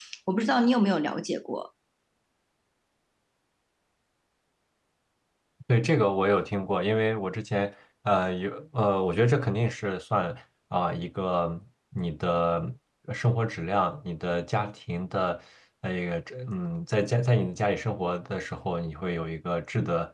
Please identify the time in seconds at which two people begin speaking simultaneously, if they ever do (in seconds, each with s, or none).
none